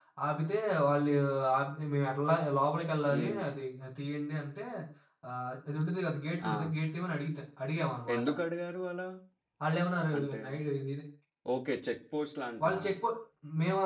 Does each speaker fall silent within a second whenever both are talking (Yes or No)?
Yes